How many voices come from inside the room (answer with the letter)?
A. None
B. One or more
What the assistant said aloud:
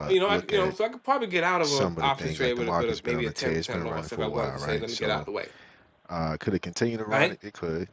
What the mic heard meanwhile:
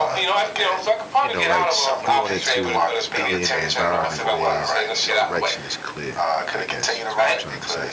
B